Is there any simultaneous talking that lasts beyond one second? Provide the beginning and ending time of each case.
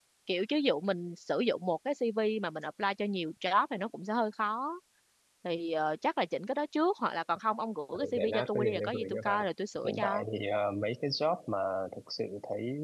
7.9-9.4

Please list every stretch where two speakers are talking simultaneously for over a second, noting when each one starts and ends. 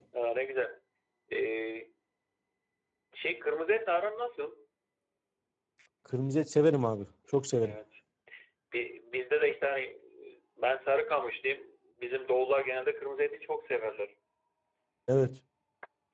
none

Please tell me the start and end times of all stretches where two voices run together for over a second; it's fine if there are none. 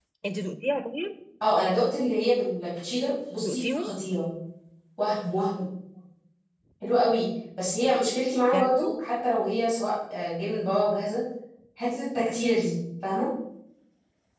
none

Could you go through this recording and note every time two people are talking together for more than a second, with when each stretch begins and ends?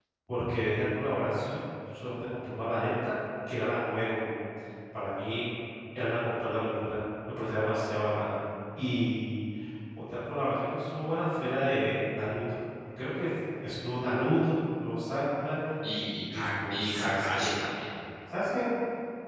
16.3-17.5

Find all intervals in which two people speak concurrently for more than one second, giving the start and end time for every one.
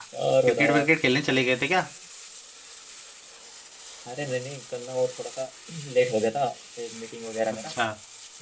none

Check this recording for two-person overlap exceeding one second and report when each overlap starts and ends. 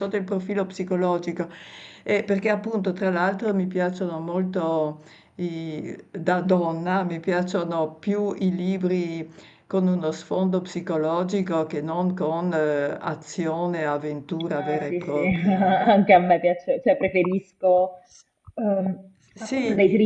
14.6-16.0

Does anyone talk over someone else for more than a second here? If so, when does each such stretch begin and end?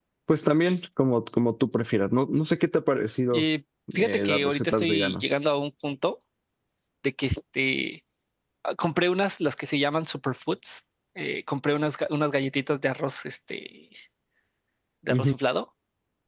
4.0-5.4

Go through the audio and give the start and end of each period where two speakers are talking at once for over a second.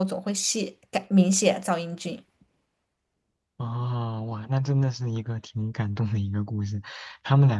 none

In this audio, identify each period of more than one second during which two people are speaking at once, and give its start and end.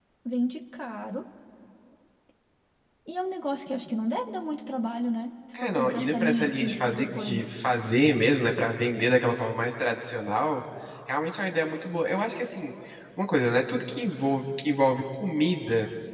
5.6-7.6

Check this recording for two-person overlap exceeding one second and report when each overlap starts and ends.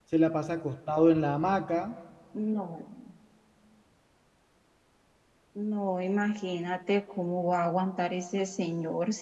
none

